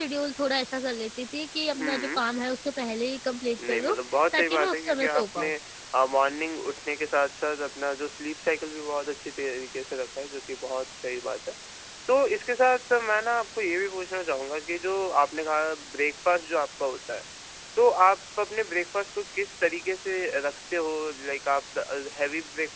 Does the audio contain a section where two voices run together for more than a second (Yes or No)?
Yes